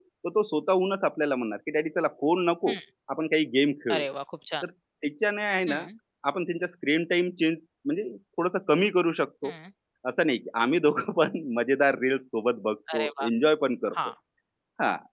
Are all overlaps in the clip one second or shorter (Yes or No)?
Yes